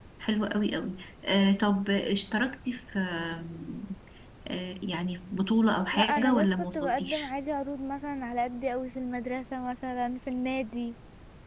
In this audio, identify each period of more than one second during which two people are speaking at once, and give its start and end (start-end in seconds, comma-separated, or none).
5.9-7.3